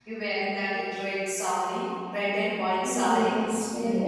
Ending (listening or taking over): taking over